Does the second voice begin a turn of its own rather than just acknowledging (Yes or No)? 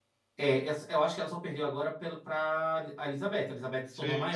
No